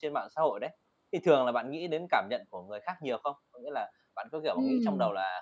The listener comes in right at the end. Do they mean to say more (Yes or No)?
No